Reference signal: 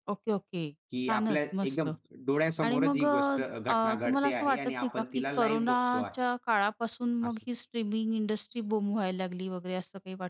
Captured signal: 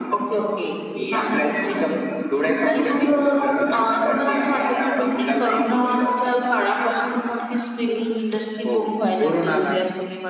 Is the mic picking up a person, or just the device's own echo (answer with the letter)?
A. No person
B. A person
B